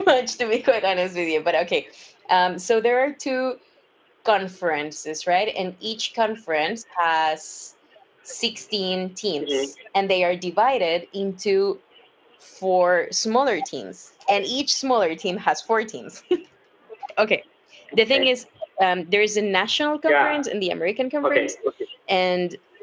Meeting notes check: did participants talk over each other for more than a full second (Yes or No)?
No